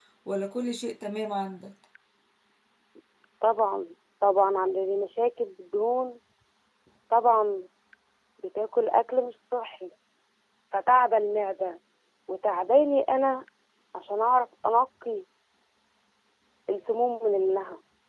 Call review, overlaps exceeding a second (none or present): none